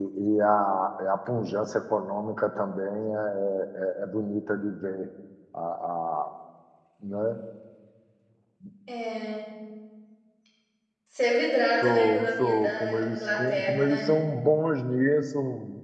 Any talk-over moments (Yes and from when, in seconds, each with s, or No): Yes, from 11.8 s